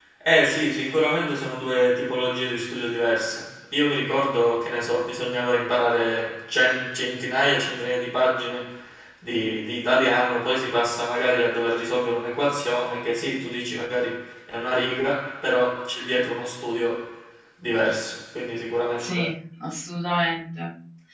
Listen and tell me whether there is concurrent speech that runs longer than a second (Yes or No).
No